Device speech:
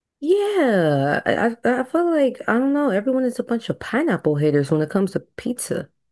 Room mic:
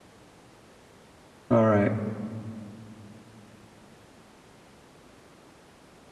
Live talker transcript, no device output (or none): All right.